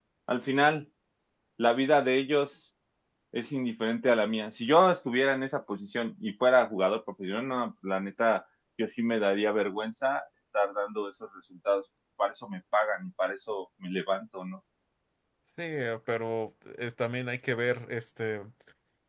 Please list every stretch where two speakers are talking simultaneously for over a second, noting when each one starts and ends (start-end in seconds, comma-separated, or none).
none